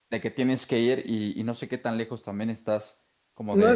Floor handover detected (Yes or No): Yes